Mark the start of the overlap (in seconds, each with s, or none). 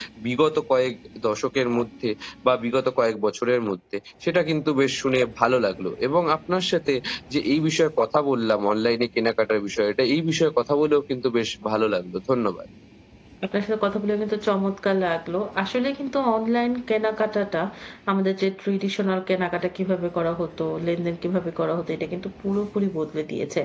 none